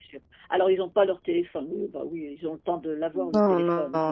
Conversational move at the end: taking over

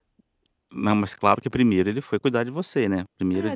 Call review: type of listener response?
taking over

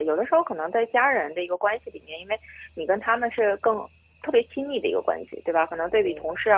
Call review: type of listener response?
listening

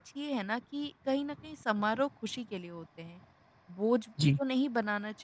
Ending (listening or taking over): listening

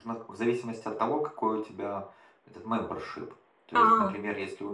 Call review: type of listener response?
listening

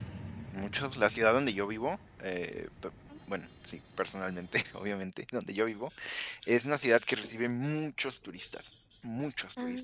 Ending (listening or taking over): listening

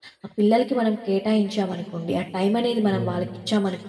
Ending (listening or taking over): listening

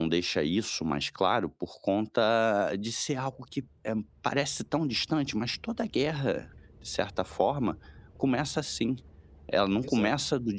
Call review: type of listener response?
listening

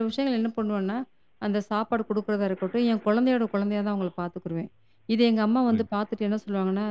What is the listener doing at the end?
listening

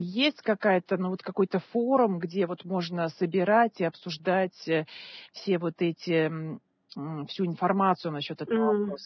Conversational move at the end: taking over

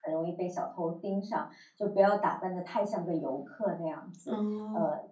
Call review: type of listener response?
listening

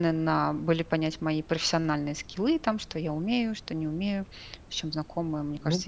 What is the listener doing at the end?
taking over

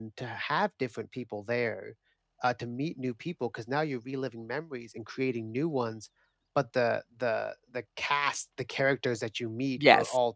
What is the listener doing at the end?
listening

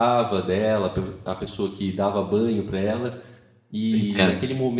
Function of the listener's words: listening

